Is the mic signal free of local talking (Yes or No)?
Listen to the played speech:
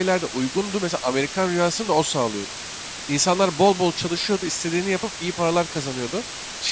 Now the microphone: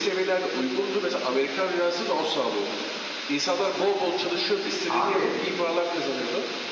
No